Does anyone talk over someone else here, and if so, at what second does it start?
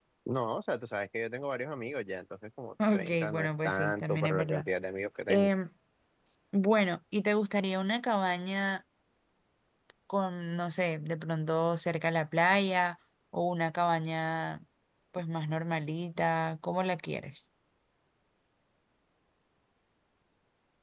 2.8 s

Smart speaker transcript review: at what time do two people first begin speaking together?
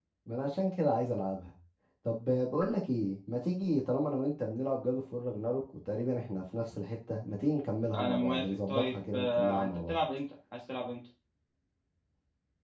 7.9 s

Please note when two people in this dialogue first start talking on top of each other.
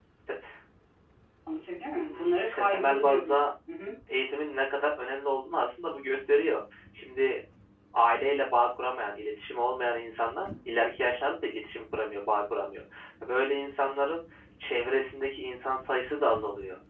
1.9 s

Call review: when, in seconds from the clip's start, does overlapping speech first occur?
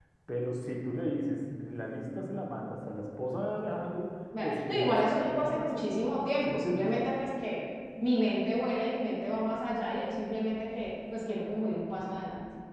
4.4 s

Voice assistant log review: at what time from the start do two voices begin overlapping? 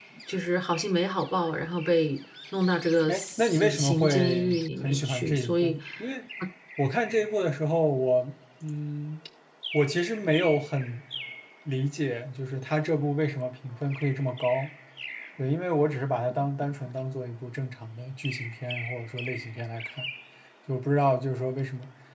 3.1 s

